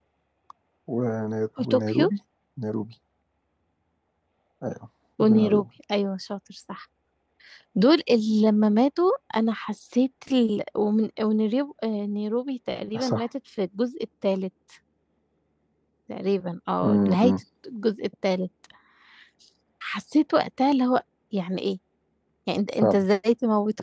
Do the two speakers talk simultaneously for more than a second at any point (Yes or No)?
No